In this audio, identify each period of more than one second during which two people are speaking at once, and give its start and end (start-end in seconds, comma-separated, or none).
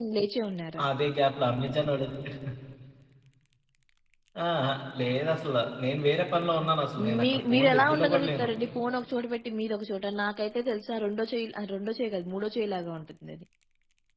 7.2-8.5